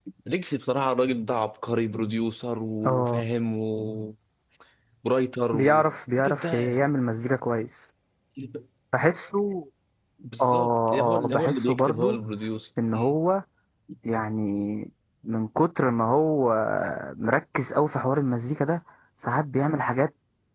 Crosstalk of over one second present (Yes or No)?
Yes